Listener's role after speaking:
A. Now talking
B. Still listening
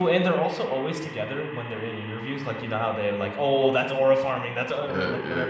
A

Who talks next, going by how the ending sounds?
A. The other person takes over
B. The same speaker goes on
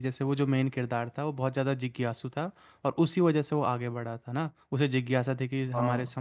B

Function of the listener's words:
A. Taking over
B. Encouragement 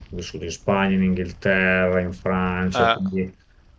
B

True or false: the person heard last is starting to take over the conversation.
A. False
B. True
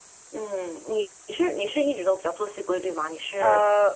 B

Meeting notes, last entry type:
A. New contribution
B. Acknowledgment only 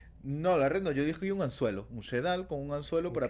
B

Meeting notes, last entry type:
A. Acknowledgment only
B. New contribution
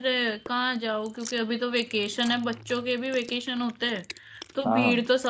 A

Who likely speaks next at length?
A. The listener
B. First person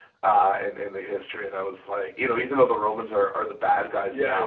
A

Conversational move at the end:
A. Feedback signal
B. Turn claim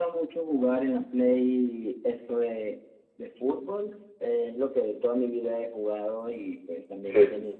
A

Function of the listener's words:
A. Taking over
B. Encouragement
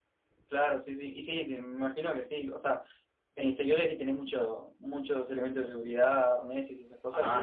A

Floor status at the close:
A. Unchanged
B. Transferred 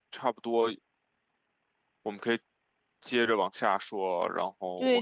B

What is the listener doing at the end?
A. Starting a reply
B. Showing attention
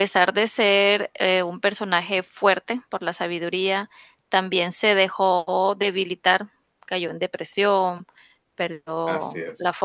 B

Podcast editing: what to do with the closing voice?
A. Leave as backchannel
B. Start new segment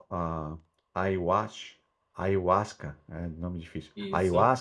A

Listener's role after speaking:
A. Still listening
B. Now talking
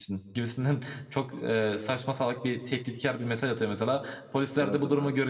A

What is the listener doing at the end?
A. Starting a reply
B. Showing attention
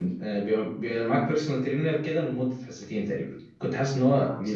B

